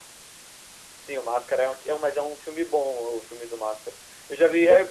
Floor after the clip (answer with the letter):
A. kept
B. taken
A